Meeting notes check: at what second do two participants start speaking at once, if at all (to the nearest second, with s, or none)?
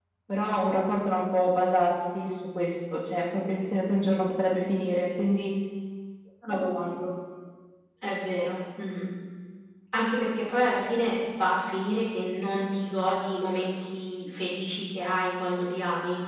none